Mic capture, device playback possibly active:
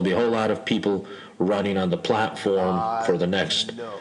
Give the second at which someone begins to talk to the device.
2.5 s

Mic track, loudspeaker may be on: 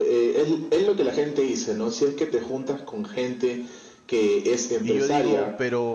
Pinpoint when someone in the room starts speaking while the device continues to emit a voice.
4.8 s

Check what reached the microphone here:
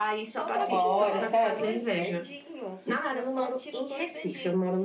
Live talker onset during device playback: 0.5 s

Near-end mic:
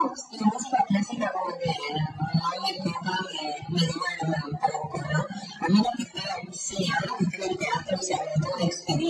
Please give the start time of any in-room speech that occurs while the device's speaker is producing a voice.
none

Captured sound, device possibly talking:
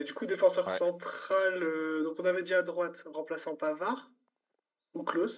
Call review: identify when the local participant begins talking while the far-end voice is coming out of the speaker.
0.7 s

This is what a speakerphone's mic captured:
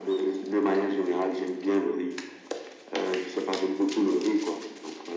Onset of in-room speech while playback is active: none

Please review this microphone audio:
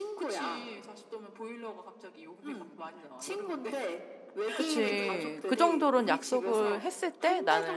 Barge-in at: 4.5 s

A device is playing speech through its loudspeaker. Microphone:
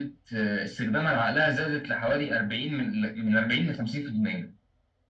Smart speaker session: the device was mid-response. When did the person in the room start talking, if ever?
none

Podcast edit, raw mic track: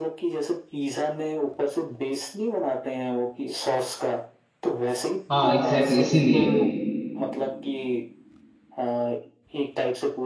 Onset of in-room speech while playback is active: 5.3 s

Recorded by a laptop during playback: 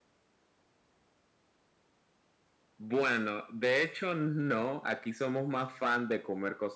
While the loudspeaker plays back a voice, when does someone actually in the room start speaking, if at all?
none

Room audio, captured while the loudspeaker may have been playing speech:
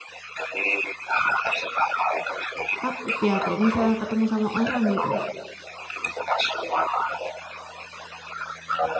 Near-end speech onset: 2.8 s

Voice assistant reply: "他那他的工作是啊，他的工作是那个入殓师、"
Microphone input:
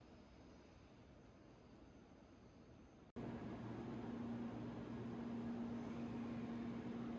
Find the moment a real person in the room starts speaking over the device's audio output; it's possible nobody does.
none

